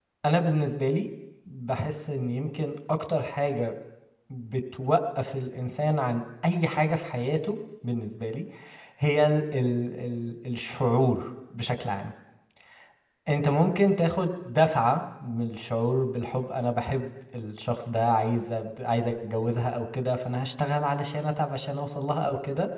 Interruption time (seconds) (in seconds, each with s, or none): none